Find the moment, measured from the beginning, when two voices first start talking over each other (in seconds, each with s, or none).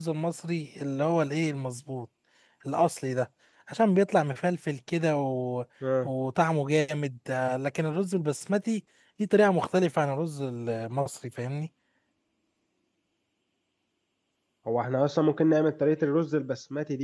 none